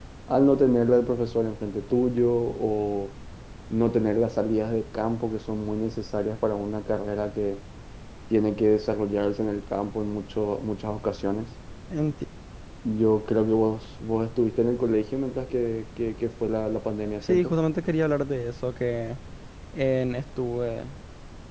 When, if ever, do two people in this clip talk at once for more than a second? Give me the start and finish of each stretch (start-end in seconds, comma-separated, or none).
none